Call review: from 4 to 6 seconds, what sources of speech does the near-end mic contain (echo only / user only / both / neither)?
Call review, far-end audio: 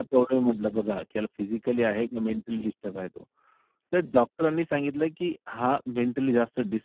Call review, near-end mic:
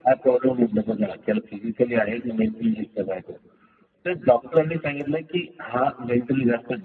echo only